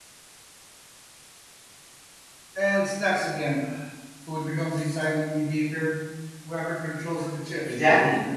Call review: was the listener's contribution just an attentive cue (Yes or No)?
No